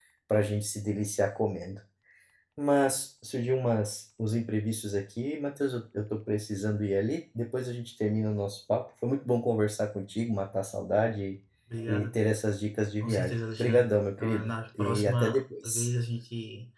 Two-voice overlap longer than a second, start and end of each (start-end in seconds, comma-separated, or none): 13.0-15.9